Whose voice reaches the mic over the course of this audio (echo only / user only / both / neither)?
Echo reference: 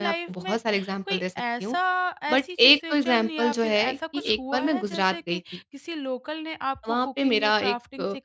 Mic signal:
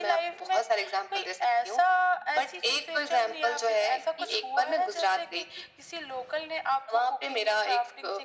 echo only